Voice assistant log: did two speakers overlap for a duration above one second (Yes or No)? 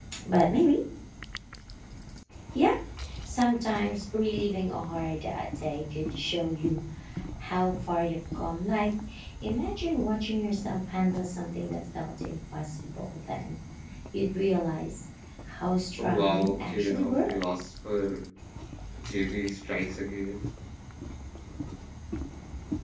Yes